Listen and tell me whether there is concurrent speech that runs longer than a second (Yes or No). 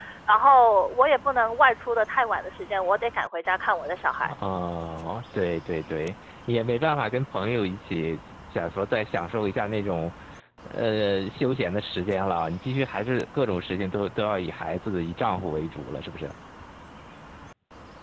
No